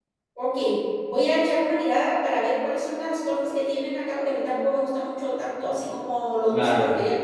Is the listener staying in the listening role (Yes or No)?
Yes